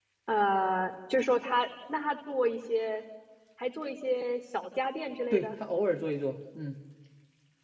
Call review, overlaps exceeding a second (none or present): none